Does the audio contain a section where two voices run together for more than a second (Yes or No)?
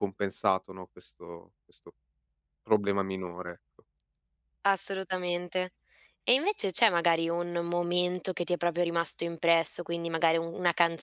No